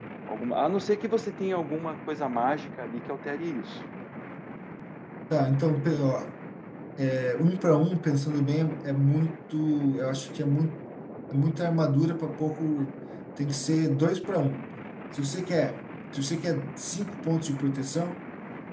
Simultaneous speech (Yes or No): No